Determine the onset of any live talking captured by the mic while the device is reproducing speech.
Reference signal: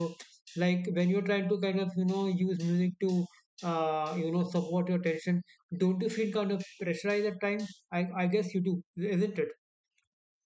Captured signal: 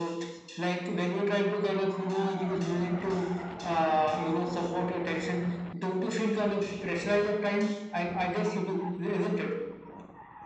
none

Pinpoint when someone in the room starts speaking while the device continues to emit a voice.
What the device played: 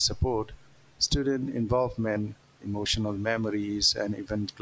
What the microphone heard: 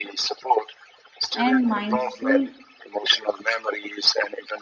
1 s

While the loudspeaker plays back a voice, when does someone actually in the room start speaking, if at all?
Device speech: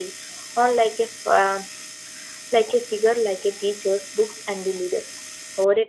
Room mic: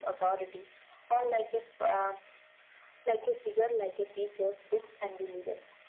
none

